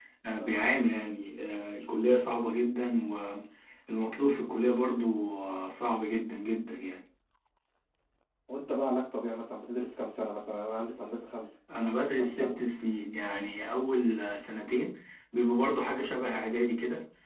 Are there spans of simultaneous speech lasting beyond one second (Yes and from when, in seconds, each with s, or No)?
No